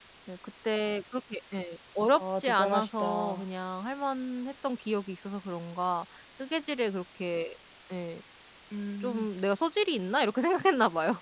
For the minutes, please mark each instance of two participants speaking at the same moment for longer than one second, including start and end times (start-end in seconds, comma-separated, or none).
2.2-3.4